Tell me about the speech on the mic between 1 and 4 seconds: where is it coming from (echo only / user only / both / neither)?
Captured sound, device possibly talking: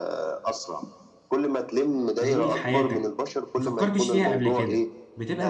both